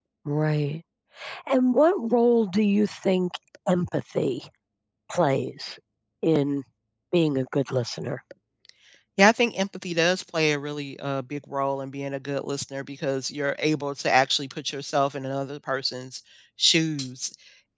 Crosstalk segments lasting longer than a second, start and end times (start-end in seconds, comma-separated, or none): none